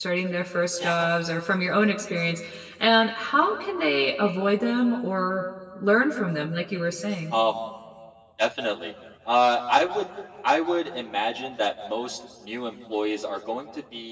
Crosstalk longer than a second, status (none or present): none